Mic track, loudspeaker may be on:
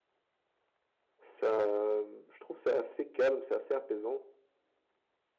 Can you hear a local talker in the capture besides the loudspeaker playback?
Yes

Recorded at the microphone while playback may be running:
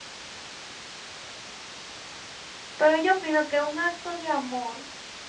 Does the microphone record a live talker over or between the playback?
Yes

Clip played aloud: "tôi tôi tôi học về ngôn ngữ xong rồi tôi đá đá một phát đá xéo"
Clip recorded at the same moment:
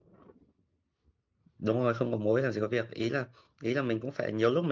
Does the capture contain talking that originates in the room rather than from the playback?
Yes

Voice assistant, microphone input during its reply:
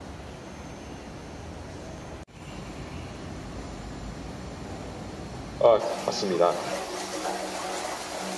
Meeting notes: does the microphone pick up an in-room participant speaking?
Yes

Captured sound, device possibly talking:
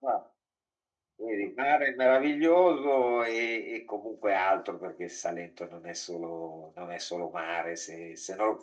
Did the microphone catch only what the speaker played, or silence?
Yes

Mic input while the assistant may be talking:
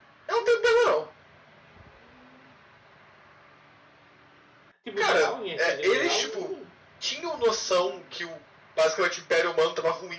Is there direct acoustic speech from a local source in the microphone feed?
Yes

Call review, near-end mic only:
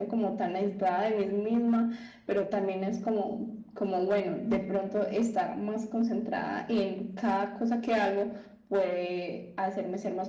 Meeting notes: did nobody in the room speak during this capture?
Yes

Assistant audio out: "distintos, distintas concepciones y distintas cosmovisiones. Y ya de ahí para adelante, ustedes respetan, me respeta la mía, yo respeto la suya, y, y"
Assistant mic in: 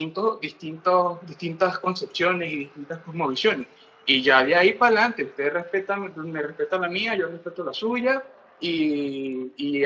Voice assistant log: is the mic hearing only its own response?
Yes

